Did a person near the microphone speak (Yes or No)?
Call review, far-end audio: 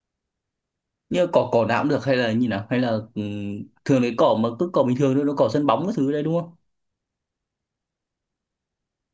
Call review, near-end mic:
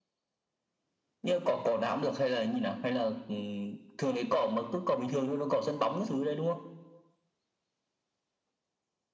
No